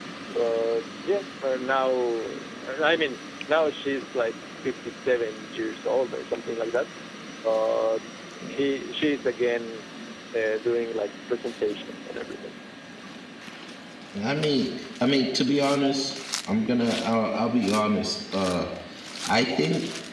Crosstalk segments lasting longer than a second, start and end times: none

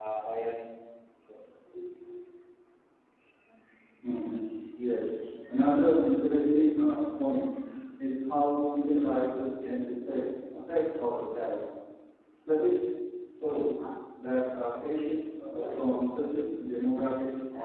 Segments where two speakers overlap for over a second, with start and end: none

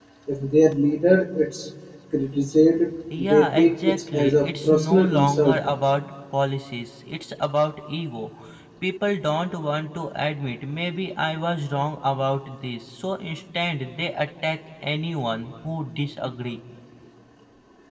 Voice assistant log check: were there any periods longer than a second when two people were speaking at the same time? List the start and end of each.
3.2-5.6

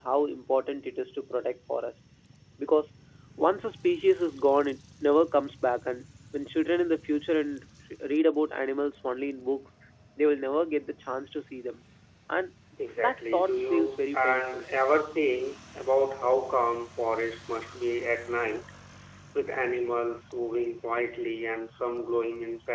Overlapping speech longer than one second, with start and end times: 13.0-14.6

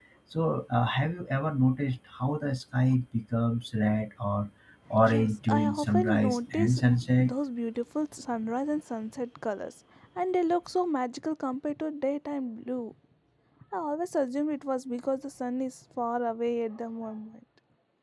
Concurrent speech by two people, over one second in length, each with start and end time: 5.0-6.8

